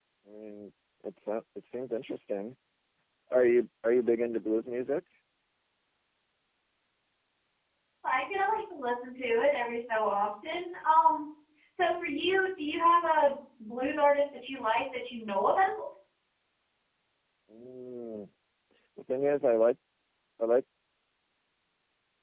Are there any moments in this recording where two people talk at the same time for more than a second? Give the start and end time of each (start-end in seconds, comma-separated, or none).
none